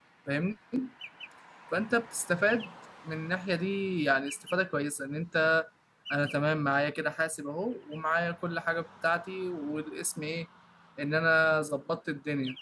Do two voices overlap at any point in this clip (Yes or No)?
No